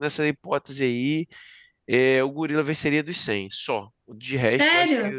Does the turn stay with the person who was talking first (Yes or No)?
No